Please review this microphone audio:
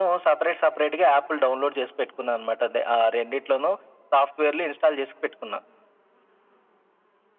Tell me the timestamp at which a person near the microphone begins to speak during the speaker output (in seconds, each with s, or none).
none